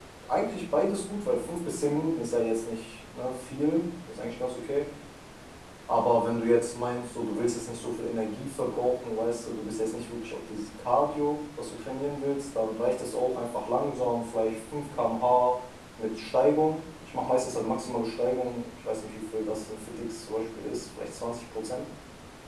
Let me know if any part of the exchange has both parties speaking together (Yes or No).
No